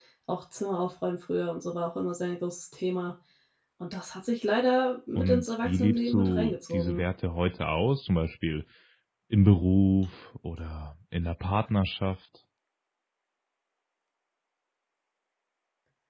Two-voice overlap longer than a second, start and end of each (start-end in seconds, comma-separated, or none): 5.2-7.0